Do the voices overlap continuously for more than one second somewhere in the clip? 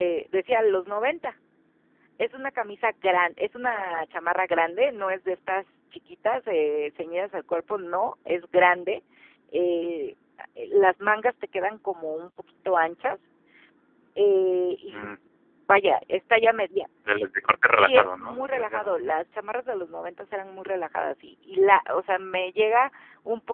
Yes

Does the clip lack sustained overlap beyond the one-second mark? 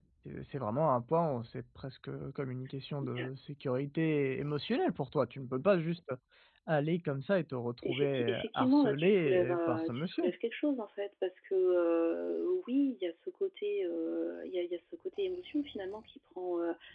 No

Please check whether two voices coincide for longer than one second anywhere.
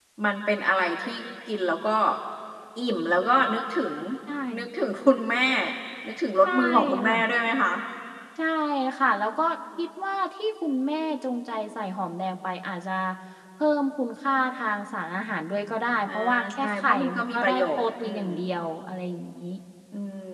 Yes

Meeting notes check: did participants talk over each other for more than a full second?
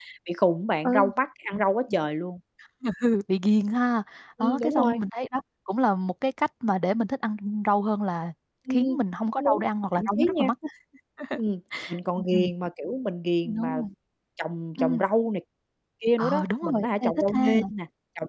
Yes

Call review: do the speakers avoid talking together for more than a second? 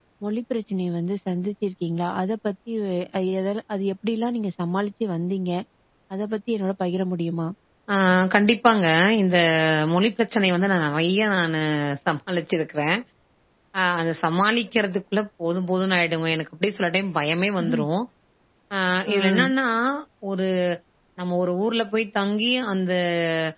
Yes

